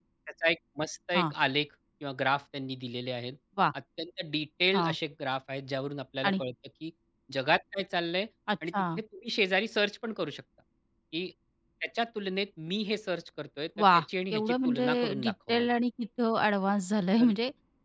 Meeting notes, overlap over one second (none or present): present